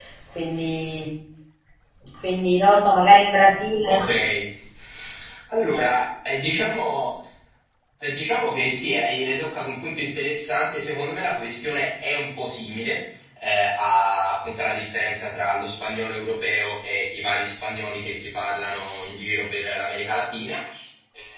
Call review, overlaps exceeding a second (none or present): none